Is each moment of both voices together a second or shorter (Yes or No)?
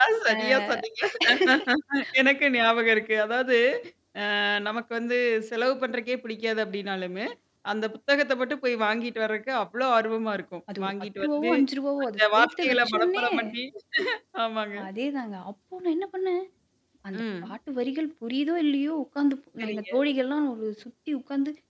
No